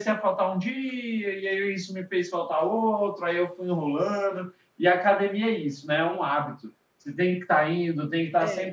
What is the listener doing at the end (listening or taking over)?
listening